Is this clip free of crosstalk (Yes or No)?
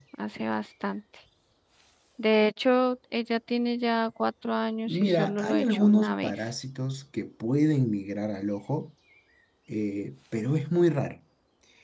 No